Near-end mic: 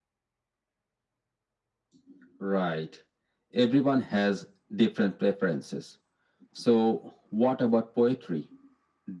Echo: present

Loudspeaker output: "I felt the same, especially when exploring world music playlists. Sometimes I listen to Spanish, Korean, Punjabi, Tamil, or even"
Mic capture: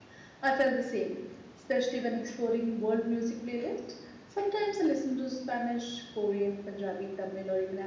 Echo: present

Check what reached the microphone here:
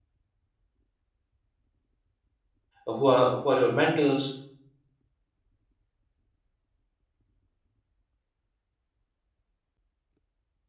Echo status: none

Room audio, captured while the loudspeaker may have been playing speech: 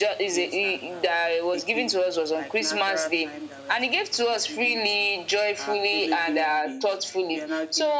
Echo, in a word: present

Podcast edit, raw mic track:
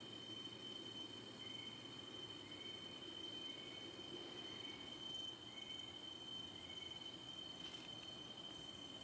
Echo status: none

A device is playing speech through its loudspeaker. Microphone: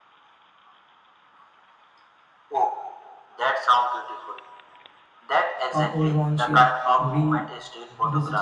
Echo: present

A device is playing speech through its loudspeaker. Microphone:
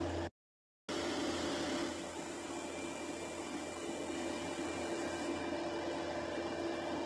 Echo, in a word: none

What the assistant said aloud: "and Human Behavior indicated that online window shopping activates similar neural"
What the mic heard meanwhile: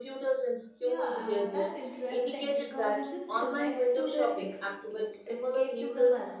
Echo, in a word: present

